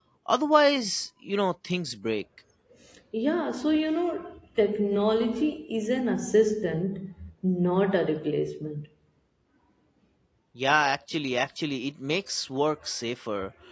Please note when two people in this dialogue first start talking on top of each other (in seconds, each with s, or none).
none